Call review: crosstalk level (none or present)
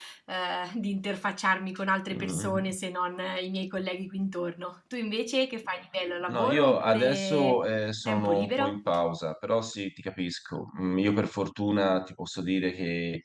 present